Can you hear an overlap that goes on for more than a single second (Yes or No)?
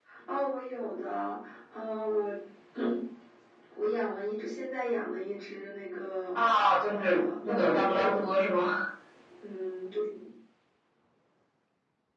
Yes